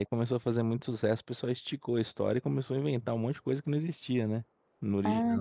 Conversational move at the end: taking over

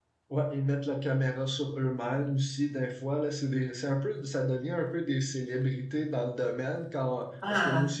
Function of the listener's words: listening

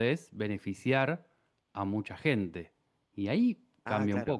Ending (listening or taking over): taking over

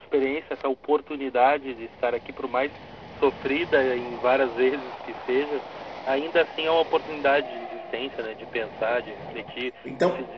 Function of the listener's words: listening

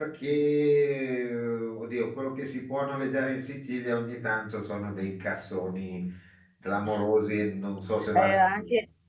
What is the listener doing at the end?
taking over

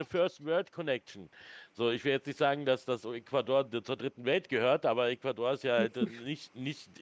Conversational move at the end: listening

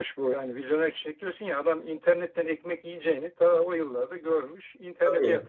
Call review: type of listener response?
taking over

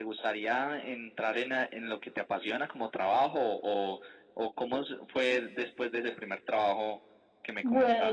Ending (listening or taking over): taking over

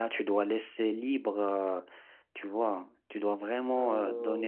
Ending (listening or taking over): listening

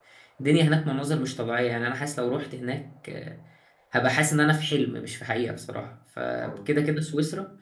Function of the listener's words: listening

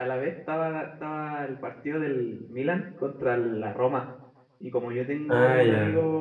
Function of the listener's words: listening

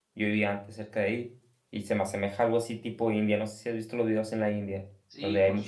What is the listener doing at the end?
taking over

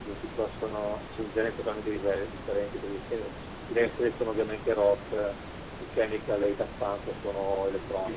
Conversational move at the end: taking over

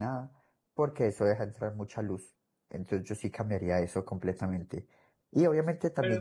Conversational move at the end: listening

